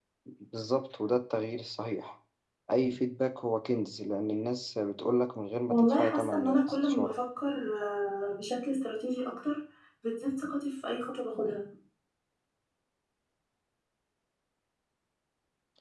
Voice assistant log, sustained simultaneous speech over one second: present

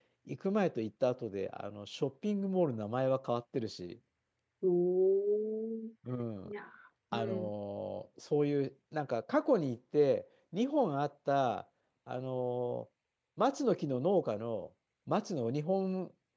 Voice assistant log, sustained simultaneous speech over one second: none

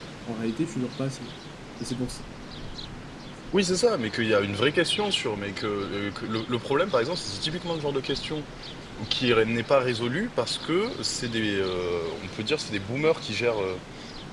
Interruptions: none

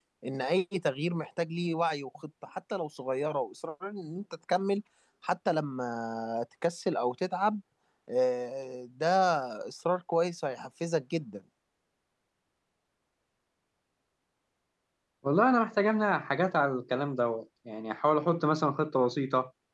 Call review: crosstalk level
none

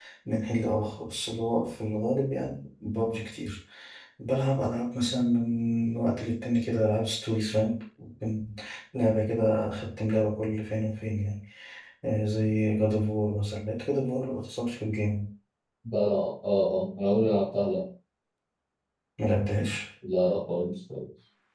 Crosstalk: none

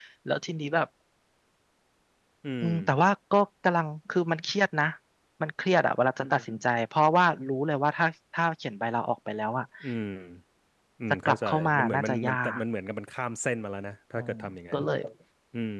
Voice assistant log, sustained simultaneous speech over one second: present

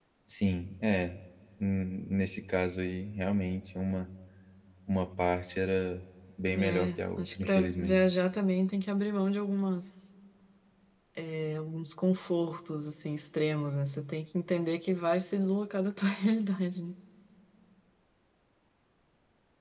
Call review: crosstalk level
present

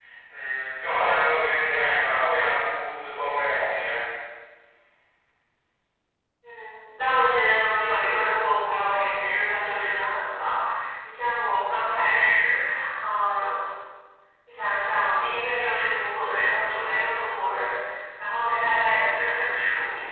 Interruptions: none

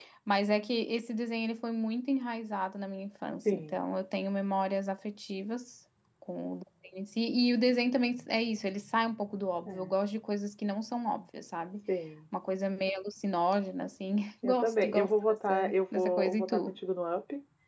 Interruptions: present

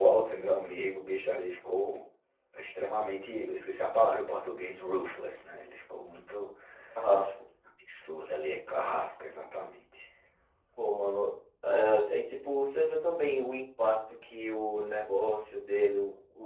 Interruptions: none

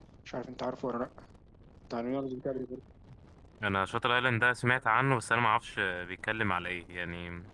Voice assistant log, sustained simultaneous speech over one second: none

